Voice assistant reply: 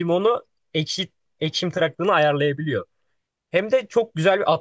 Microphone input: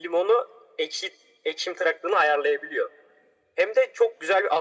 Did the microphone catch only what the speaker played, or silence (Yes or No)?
Yes